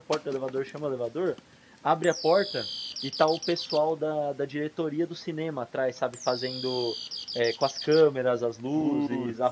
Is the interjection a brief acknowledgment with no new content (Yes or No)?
Yes